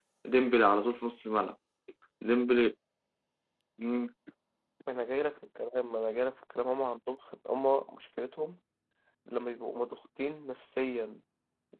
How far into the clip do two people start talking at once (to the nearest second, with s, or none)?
none